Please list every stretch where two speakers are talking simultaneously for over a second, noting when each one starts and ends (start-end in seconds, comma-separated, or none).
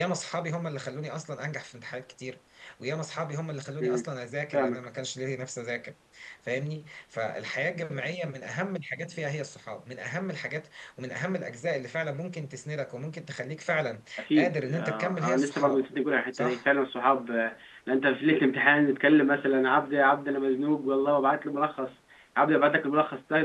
14.2-15.9